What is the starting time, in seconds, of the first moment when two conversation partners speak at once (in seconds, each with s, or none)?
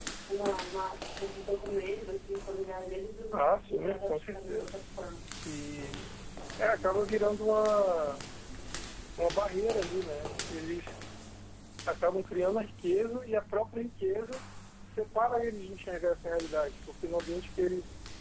3.3 s